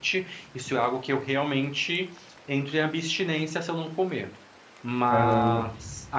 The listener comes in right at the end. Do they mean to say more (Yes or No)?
No